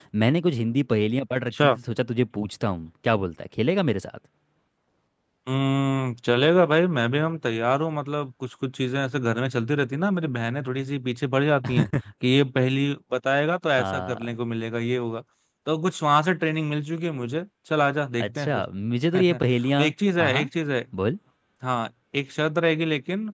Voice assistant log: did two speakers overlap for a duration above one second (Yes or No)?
No